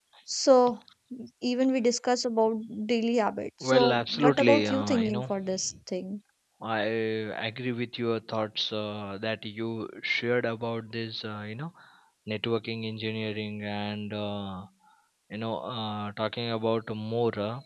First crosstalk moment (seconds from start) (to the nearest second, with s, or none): 4 s